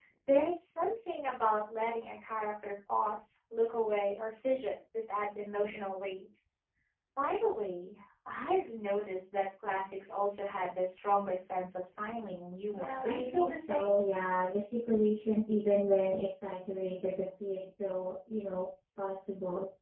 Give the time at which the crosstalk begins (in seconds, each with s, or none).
12.7 s